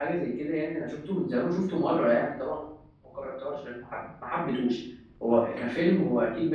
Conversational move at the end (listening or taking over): listening